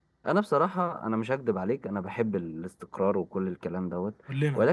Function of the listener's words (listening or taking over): listening